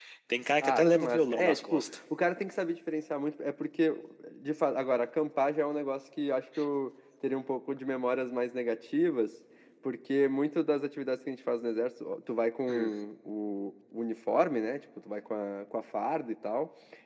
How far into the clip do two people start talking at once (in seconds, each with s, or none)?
0.6 s